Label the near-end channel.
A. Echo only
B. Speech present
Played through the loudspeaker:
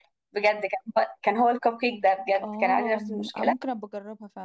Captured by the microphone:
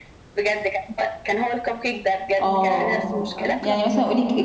B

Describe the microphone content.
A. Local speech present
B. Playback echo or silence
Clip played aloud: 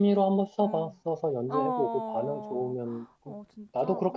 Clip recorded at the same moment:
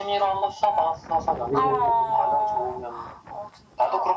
A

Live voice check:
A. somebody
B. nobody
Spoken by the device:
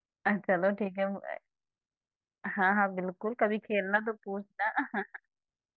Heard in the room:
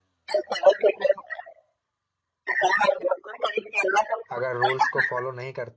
A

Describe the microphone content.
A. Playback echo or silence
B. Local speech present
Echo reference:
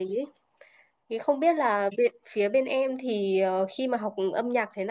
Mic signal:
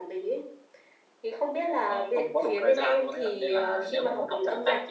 B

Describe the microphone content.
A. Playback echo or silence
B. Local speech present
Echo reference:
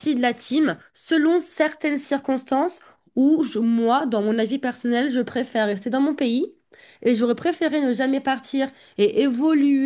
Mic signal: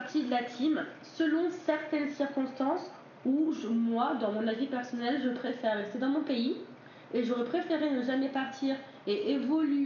A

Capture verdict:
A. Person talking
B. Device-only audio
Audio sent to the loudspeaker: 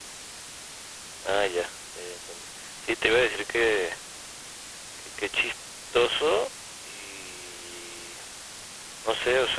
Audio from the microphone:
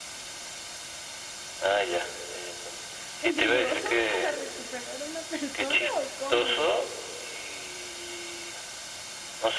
A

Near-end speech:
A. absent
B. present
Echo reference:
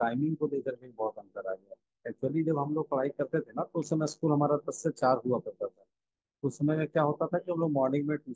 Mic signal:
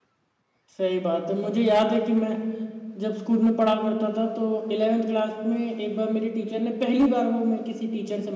B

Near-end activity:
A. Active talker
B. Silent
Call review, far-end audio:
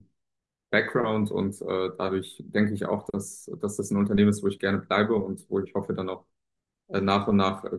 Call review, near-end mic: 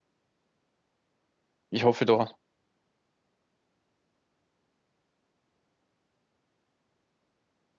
A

